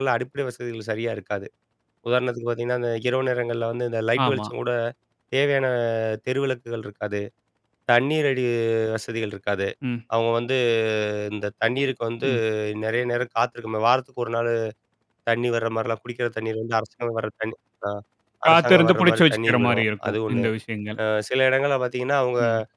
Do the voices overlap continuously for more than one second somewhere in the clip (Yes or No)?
Yes